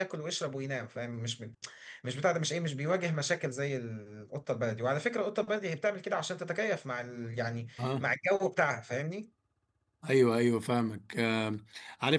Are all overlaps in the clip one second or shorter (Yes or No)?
Yes